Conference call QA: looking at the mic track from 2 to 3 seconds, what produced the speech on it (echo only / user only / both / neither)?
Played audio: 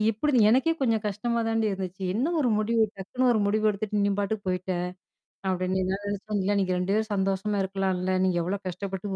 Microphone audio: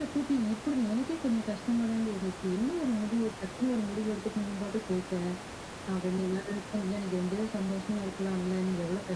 echo only